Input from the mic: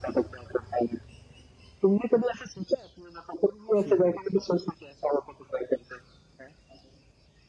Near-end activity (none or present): present